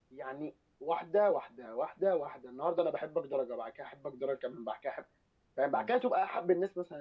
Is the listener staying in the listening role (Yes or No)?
Yes